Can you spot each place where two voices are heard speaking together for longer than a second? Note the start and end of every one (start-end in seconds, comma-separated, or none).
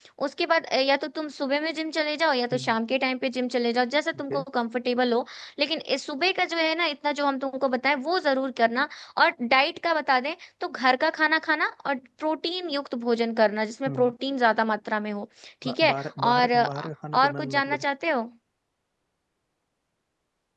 15.7-17.8